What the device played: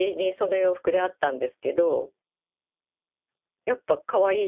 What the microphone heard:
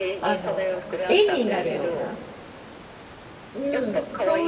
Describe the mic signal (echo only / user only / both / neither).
both